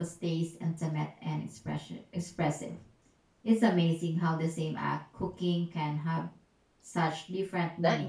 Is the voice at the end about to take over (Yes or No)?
Yes